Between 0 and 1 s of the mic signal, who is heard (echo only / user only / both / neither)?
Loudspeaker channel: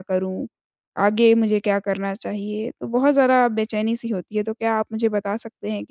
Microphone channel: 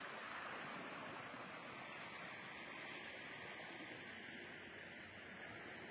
neither